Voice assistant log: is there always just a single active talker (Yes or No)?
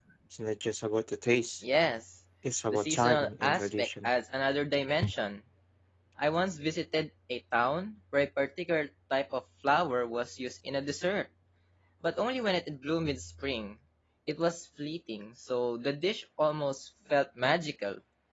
No